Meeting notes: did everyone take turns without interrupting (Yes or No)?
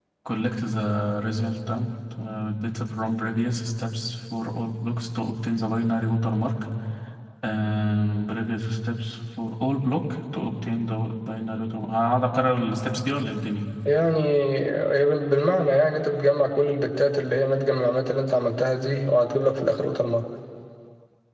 Yes